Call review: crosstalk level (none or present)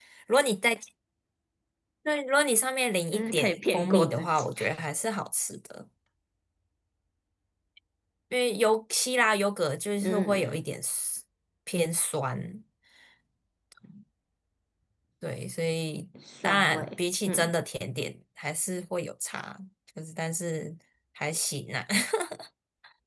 present